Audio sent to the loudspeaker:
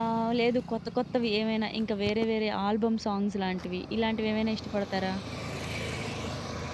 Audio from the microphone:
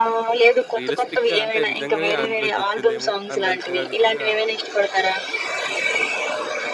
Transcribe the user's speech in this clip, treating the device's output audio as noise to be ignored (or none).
రియలిస్టిక్‌గా అంటే నిజంగానే అందులో నుంచి వచ్చిందేమో అన్నంతగా విధంగా